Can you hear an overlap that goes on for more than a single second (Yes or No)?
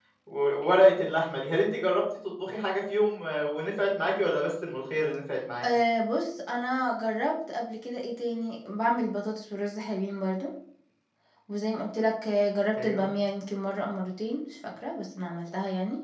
No